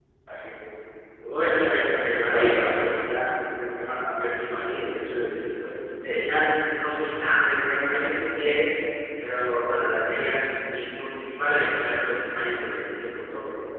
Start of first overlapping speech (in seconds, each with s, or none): 1.5 s